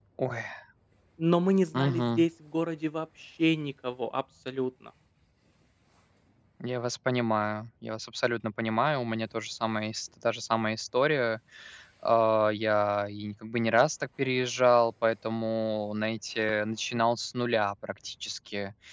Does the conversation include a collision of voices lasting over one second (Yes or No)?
No